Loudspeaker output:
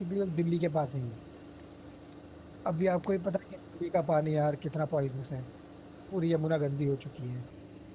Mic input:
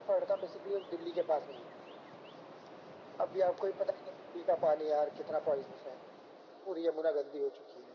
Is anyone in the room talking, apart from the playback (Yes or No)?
No